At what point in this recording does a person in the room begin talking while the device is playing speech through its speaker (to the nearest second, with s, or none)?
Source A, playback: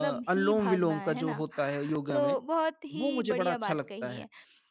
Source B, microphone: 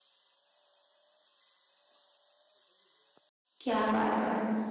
4 s